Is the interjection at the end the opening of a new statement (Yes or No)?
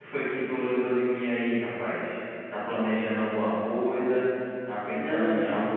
No